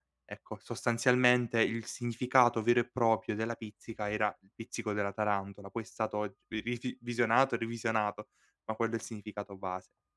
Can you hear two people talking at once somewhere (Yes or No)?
No